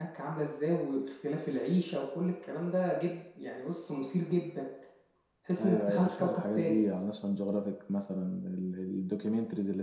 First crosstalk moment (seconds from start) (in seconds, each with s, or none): 5.6 s